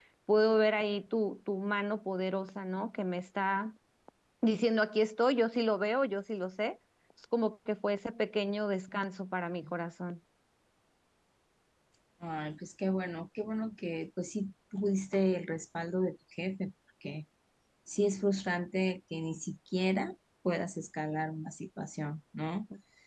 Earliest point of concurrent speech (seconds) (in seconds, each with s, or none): none